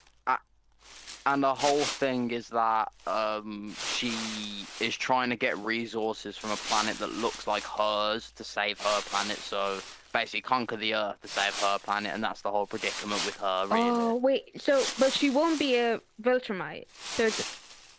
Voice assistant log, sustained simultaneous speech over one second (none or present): none